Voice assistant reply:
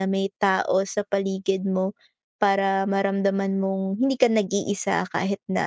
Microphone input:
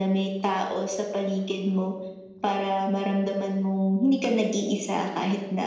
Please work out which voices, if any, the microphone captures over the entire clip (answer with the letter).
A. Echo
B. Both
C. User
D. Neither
A